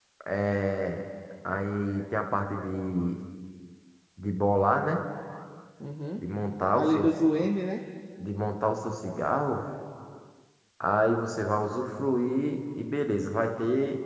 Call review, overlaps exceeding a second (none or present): none